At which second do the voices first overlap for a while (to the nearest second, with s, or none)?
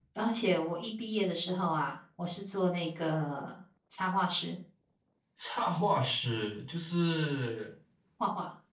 none